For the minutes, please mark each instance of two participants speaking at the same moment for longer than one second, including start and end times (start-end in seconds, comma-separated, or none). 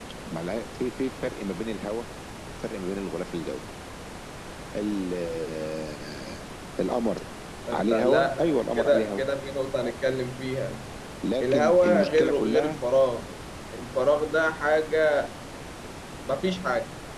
7.7-9.2, 11.4-12.8